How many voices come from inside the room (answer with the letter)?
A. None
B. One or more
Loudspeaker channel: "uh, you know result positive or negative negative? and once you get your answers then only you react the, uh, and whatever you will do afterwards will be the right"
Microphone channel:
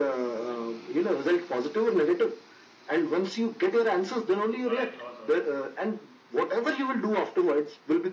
B